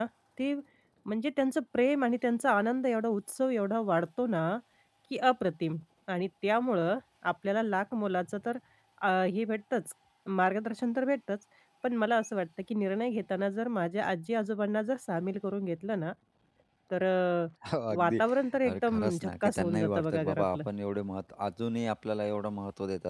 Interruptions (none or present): present